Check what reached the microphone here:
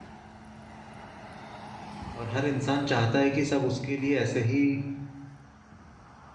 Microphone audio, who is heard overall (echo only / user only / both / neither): user only